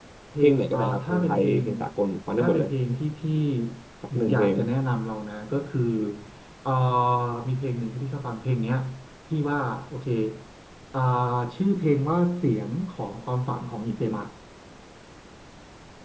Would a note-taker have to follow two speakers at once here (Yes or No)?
Yes